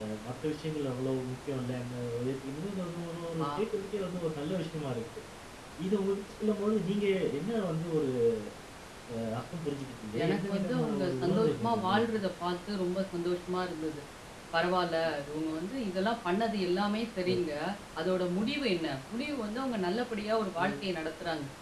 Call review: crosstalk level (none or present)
present